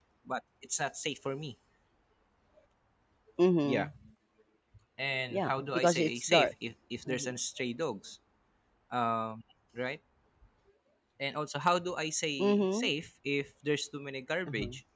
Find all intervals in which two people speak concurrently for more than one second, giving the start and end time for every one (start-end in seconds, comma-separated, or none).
5.3-6.5